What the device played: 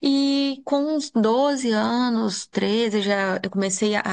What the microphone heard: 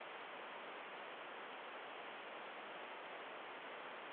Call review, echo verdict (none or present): none